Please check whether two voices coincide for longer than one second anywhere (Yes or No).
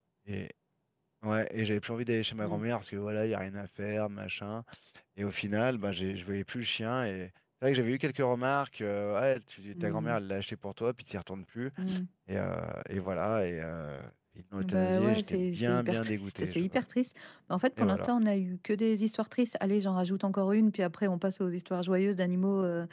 Yes